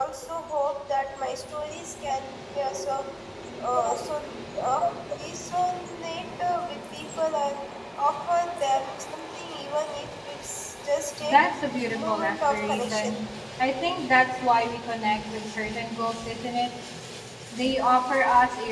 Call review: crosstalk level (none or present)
present